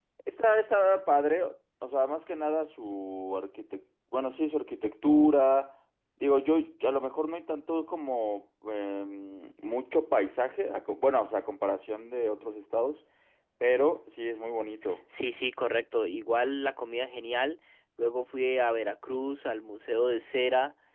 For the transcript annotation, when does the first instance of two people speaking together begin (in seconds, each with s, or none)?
none